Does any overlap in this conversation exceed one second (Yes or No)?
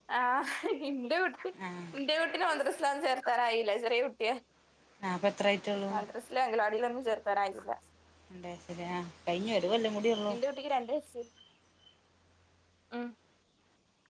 No